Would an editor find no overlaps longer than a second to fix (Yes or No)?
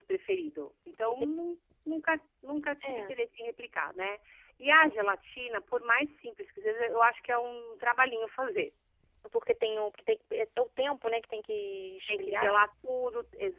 Yes